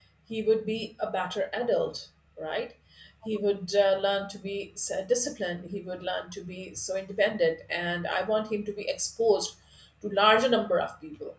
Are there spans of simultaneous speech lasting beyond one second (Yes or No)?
No